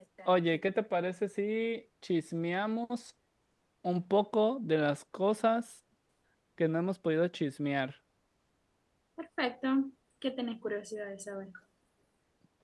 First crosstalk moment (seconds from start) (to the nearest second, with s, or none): none